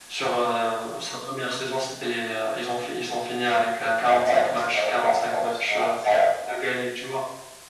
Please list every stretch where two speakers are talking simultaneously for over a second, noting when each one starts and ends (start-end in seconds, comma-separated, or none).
4.1-6.0